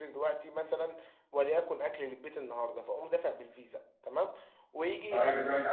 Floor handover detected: Yes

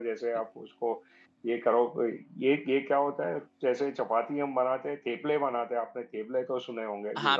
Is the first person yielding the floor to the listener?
Yes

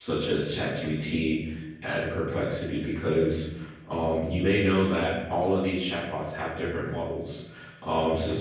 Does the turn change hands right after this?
No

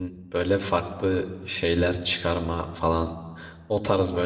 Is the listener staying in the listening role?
Yes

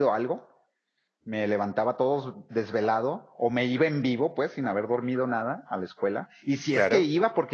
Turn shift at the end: No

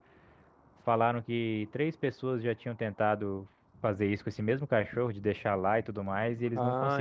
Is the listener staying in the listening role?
No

